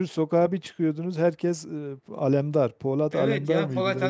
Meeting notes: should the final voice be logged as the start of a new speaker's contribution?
Yes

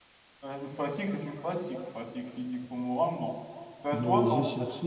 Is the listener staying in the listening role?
No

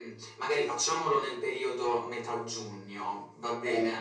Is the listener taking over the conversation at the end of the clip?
Yes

